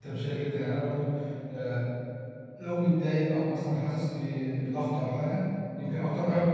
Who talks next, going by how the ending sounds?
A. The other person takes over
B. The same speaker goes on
B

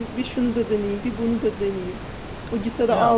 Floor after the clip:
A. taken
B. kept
B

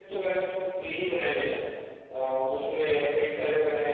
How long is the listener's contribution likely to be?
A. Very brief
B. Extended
A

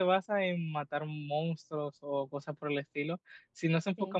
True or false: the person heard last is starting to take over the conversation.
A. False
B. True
A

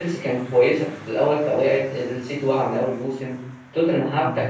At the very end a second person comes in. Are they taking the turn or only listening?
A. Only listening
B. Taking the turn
A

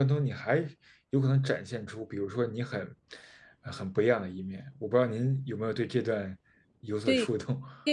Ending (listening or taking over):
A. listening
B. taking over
B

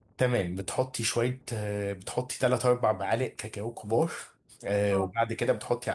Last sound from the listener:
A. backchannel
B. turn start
A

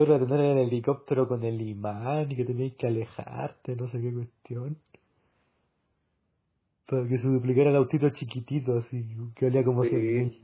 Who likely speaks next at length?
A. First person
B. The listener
B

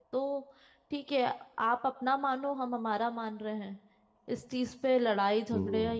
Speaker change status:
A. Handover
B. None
B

